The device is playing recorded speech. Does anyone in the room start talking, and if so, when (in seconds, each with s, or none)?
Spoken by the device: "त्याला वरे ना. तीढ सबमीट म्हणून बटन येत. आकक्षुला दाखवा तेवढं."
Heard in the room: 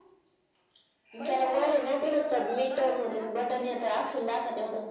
1.2 s